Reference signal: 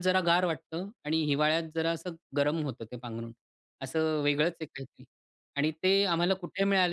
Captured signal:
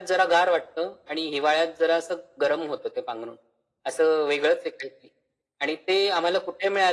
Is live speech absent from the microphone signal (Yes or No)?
Yes